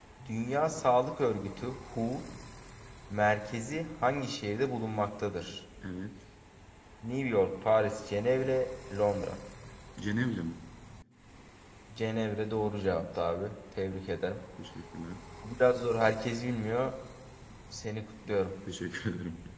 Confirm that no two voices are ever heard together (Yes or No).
Yes